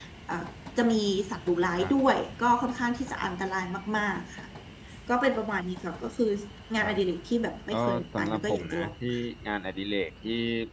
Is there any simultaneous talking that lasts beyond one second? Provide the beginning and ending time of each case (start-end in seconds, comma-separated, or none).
7.7-8.9